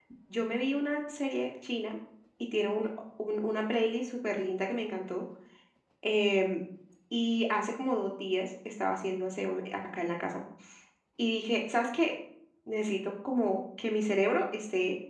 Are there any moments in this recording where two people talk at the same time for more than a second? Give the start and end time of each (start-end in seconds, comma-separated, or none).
none